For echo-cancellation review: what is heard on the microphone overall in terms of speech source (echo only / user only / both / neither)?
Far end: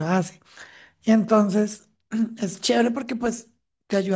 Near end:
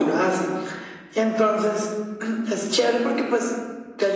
echo only